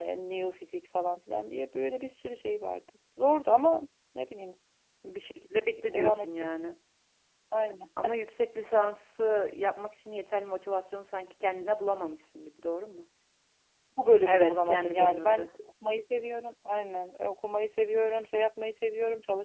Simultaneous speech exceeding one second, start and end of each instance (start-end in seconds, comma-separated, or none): 14.2-15.5